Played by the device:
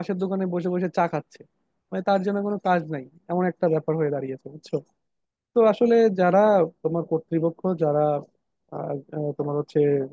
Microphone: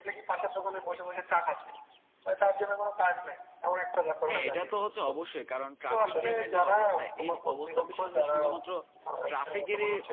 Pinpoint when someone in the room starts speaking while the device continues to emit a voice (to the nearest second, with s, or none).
4 s